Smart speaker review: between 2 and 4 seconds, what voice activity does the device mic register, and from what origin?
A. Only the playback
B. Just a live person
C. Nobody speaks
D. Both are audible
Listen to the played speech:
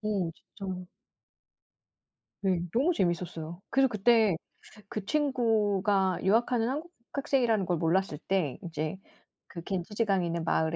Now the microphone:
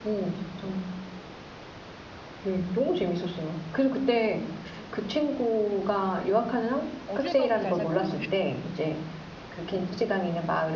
A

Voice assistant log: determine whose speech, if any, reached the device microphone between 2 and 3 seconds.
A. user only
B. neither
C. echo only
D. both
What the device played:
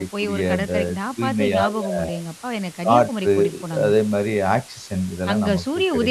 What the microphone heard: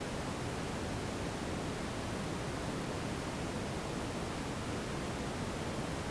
B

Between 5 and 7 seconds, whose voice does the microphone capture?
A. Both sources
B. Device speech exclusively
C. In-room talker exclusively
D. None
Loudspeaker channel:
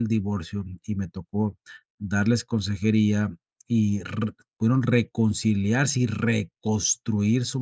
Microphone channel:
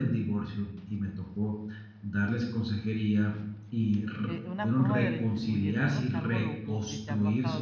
A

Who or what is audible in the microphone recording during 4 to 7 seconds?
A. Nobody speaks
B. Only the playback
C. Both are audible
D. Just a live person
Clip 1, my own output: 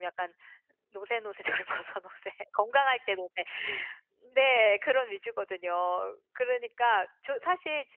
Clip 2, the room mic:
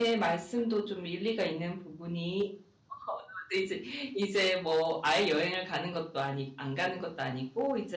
D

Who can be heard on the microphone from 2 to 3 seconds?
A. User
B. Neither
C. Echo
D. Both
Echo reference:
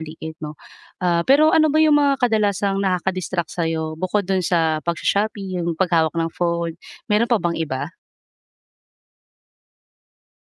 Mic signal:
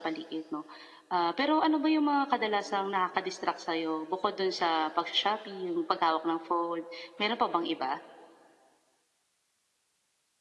C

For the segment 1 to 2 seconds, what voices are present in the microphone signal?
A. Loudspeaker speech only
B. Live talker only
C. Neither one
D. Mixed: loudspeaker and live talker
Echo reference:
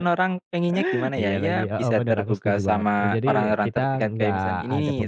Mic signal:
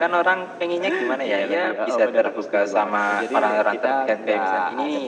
A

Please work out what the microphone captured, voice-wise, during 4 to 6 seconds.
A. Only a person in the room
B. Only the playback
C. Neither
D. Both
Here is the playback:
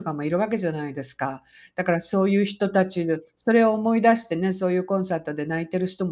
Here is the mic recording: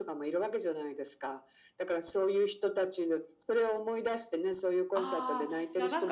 D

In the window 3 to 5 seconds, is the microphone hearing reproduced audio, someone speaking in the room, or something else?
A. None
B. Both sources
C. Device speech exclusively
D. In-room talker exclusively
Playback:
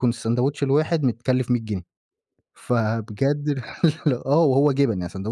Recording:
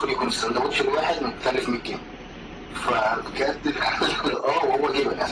C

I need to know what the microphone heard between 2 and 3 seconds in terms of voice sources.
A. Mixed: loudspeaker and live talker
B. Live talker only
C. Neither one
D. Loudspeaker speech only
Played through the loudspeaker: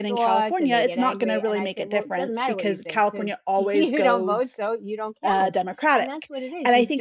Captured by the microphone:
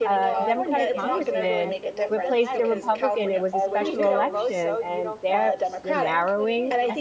A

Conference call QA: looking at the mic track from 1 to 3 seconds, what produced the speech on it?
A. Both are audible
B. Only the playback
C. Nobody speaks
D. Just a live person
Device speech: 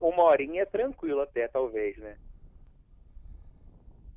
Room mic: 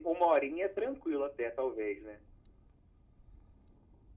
B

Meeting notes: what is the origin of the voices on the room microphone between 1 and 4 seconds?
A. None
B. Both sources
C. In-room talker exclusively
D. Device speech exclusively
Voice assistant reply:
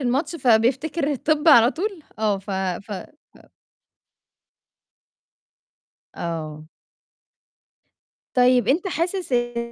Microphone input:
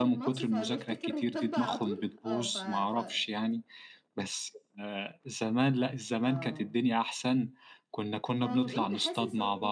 B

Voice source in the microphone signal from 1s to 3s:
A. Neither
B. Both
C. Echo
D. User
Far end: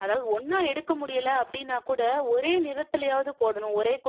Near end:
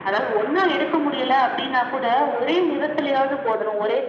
C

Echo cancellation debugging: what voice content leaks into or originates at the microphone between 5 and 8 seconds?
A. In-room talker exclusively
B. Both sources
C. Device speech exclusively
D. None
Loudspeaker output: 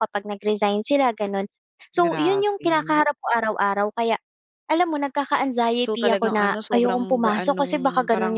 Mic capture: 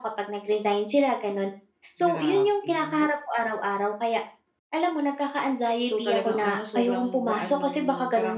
C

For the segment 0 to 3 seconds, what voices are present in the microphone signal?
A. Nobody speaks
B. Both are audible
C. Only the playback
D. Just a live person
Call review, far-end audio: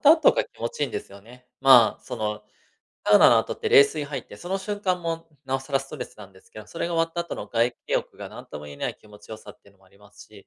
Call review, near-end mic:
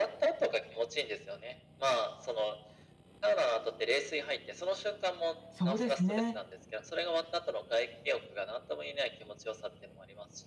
C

